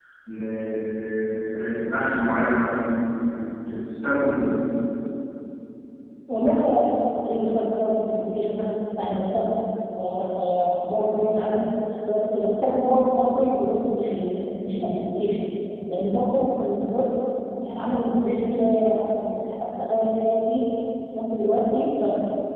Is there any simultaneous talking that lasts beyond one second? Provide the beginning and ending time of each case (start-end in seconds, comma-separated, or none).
none